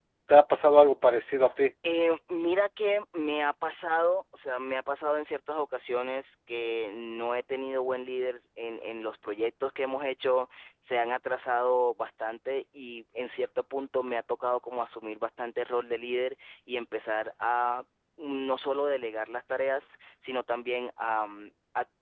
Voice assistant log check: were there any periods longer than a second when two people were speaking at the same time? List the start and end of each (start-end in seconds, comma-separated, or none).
none